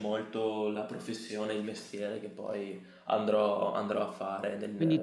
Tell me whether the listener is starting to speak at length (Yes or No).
Yes